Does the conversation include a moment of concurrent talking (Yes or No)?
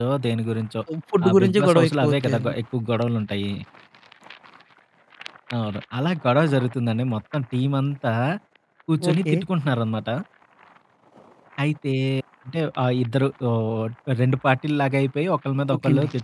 Yes